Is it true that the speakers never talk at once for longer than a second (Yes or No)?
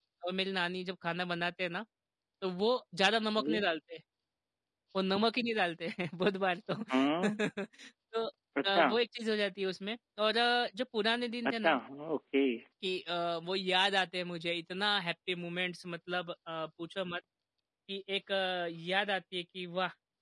Yes